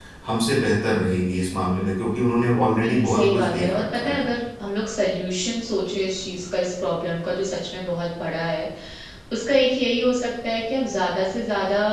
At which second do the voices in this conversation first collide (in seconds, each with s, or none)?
2.8 s